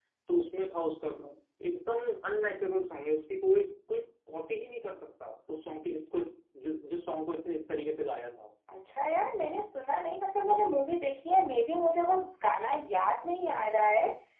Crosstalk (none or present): none